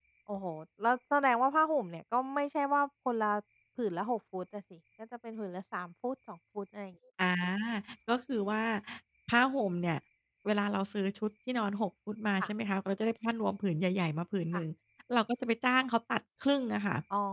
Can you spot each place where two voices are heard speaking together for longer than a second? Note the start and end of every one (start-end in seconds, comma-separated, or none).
none